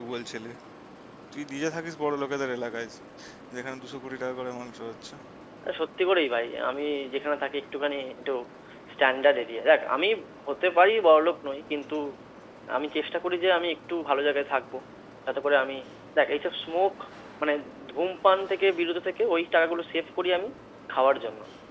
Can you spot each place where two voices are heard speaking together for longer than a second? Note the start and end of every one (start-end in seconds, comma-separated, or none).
none